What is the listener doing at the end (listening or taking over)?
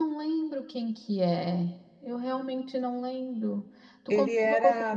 taking over